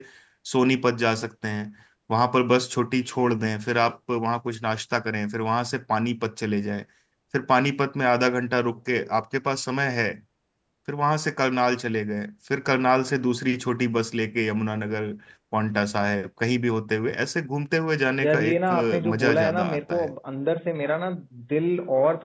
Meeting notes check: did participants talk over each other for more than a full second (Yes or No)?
Yes